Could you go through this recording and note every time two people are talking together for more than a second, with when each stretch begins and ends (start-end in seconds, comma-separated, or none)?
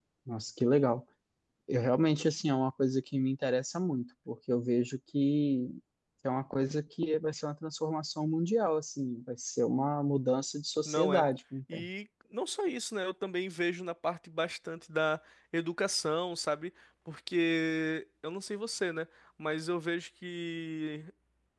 none